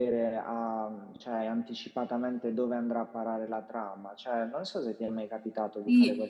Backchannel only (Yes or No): No